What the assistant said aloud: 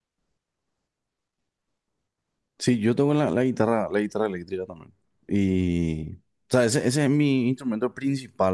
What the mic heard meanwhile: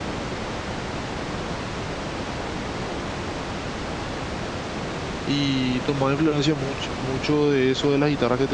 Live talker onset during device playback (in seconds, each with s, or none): 5.2 s